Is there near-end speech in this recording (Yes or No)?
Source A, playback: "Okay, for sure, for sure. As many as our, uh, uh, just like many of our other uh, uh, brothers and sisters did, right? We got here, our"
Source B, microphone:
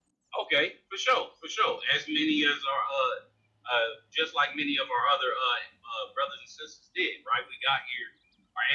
No